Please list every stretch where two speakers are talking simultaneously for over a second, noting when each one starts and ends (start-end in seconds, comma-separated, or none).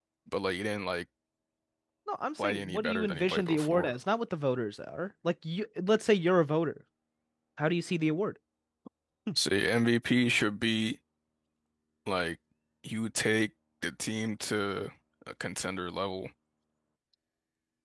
2.4-3.9